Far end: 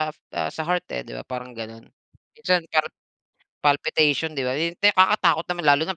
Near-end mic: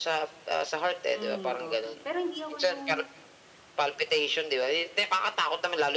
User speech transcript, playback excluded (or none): Hmm, coffee pero hindi ako yung